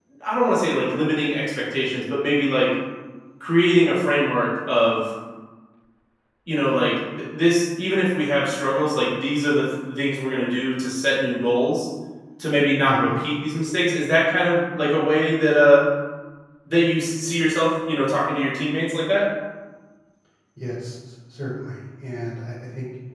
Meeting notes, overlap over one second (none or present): none